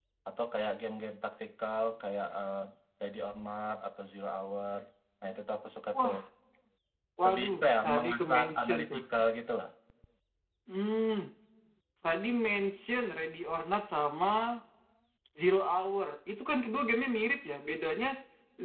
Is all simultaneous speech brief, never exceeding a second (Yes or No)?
No